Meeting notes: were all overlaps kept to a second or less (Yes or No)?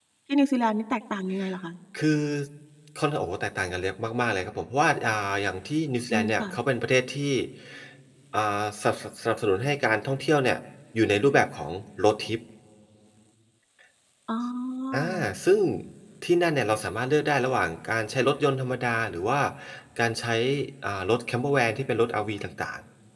Yes